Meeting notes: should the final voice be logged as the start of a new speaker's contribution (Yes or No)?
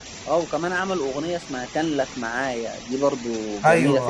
Yes